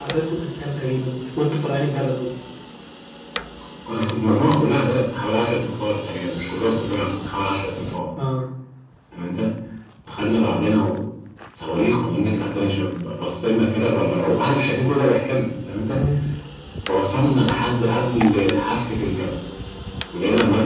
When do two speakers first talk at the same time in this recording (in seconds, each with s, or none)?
none